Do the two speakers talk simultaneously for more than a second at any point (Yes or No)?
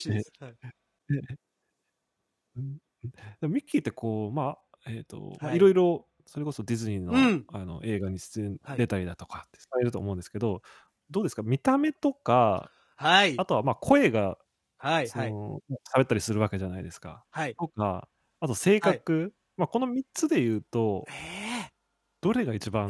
No